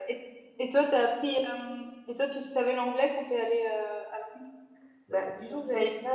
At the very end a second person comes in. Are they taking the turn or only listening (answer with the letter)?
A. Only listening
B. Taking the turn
B